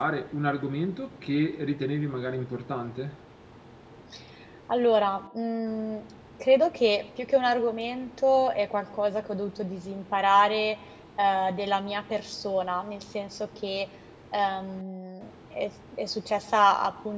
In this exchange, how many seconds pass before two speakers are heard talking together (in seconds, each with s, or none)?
none